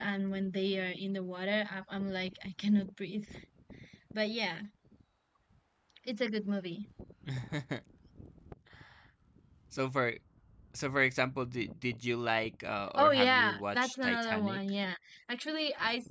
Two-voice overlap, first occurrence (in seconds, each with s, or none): 13.0 s